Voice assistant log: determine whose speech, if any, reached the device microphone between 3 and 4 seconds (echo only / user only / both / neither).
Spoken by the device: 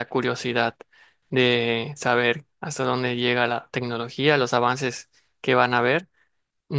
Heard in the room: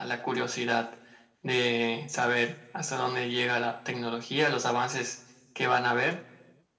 echo only